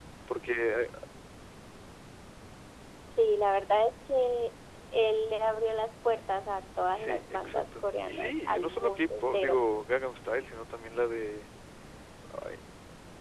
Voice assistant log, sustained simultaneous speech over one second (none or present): present